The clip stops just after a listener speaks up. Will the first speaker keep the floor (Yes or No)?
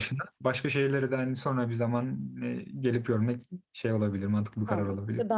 No